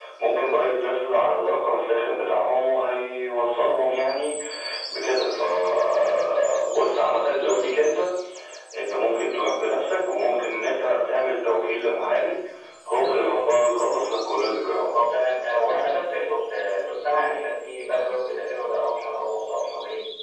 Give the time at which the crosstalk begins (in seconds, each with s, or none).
none